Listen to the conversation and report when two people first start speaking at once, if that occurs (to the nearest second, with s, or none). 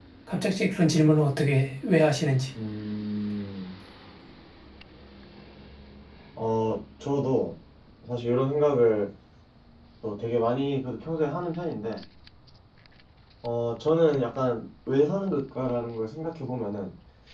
none